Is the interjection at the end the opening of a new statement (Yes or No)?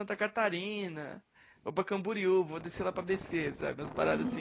Yes